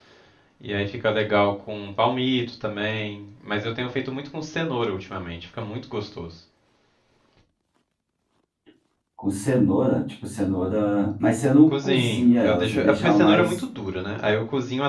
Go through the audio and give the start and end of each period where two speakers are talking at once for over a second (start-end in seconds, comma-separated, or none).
11.7-13.6